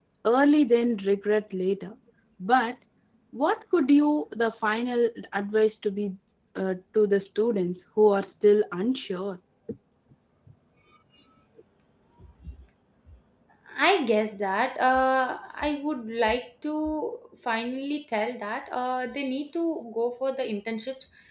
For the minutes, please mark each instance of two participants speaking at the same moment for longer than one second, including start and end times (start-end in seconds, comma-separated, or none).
none